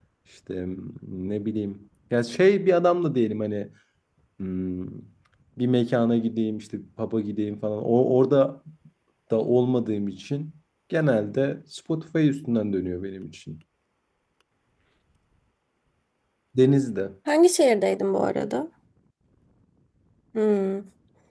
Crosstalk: none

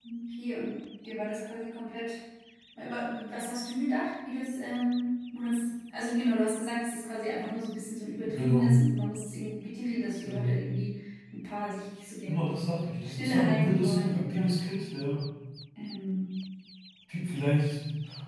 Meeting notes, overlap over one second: present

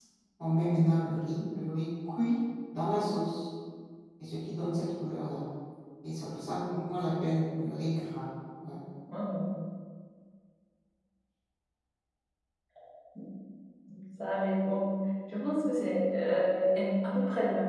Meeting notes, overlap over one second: none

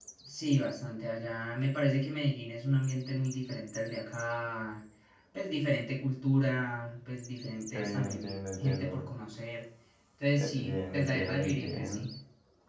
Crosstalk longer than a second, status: present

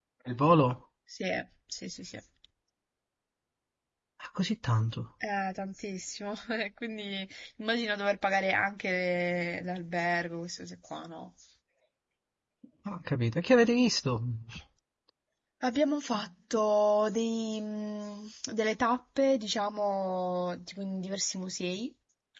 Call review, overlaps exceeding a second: none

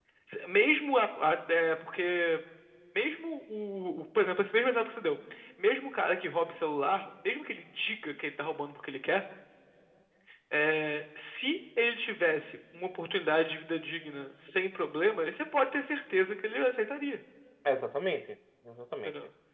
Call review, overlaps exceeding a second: none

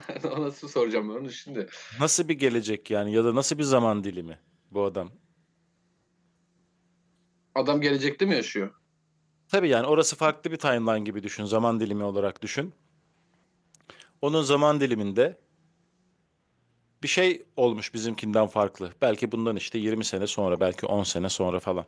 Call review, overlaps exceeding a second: none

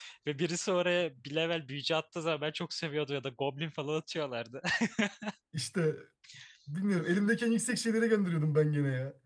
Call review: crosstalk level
none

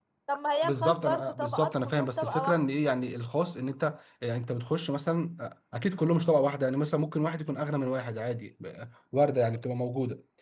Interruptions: present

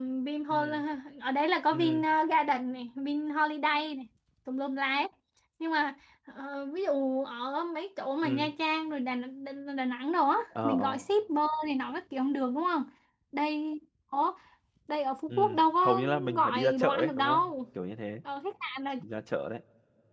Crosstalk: present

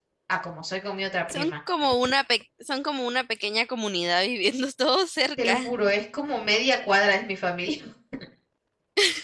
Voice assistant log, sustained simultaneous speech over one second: none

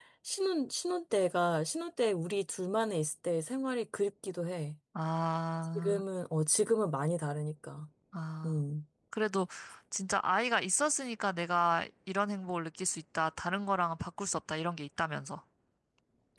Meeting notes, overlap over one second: none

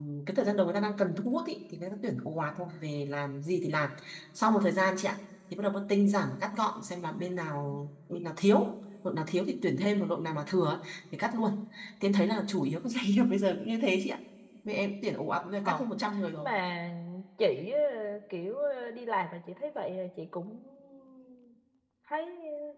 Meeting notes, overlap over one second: none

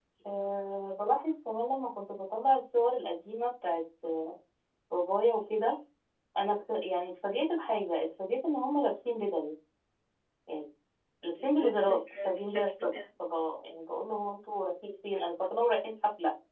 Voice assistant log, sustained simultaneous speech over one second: present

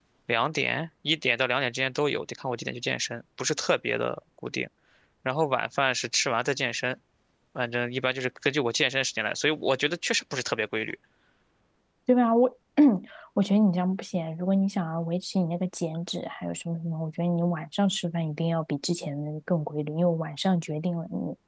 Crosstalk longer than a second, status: none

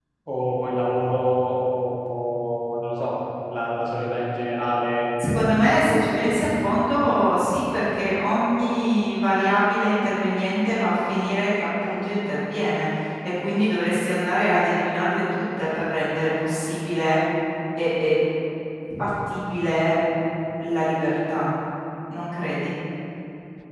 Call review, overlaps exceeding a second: none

